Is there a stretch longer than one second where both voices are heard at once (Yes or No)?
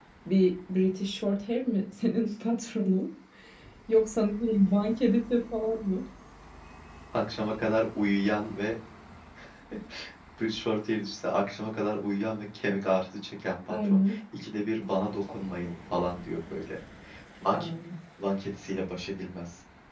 No